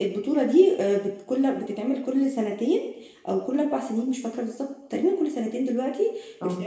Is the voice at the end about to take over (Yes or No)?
No